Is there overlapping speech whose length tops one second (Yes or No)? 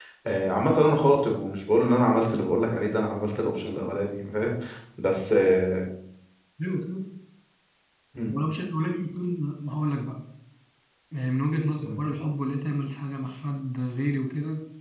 No